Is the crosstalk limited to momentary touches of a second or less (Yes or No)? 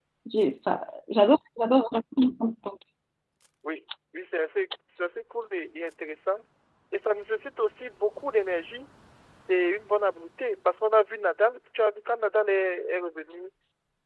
Yes